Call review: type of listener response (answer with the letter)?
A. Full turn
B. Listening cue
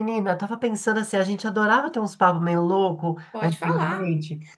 B